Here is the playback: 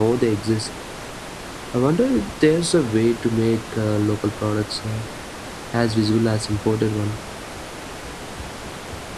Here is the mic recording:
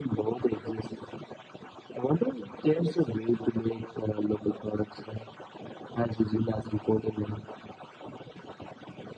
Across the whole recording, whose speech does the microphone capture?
echo only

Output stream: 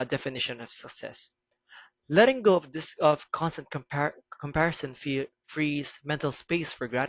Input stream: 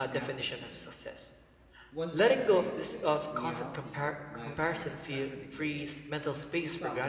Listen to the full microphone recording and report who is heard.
both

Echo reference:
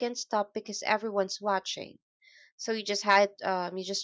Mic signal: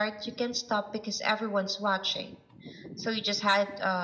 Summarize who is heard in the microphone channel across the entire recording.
echo only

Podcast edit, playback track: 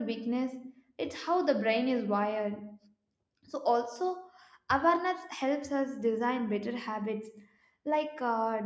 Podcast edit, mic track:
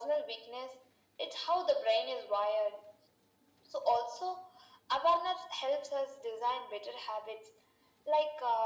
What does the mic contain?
echo only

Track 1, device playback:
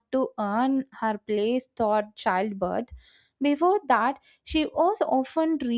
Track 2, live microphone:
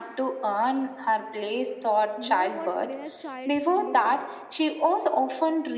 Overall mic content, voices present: both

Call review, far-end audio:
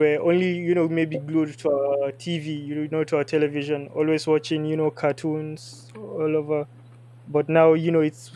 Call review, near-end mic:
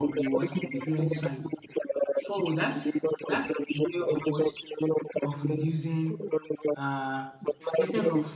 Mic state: both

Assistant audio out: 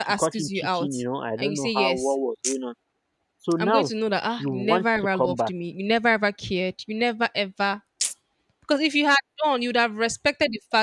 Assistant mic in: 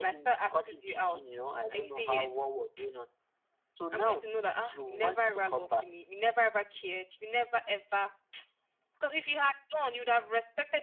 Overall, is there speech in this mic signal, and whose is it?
echo only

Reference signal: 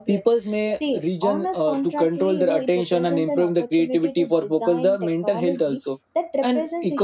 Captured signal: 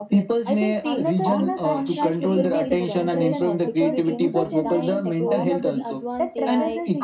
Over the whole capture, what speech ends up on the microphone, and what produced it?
both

